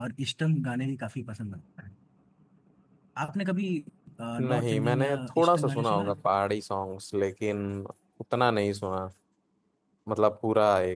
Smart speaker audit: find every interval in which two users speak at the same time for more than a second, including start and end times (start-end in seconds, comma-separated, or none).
4.4-6.1